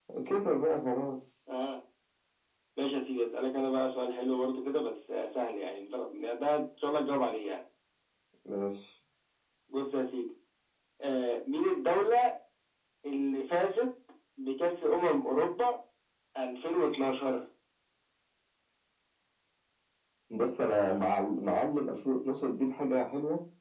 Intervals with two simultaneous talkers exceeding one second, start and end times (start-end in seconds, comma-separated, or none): none